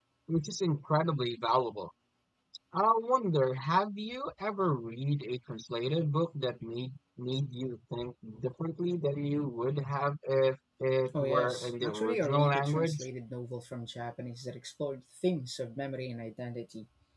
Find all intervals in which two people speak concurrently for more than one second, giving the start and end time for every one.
11.2-13.1

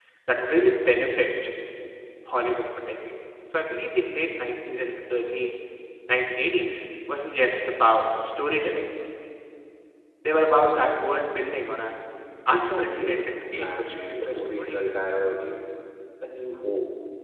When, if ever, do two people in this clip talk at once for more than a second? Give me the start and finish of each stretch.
12.5-15.0

